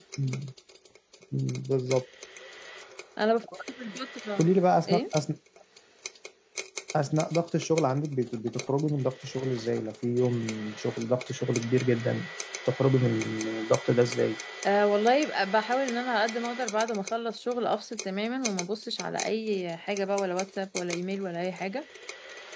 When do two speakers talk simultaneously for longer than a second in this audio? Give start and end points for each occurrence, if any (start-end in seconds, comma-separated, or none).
none